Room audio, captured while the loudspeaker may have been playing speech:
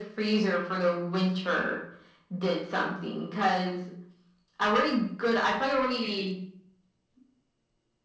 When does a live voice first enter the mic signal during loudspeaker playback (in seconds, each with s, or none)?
none